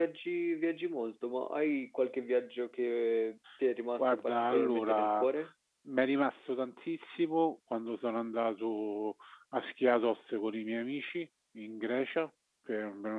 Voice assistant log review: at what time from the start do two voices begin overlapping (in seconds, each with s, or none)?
4.0 s